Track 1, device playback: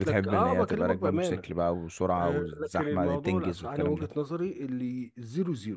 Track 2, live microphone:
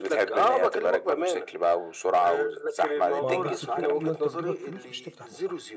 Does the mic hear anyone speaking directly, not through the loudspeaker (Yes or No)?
Yes